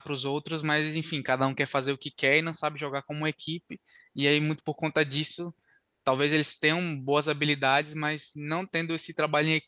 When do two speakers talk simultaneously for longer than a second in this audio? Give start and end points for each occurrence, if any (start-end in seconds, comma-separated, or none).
none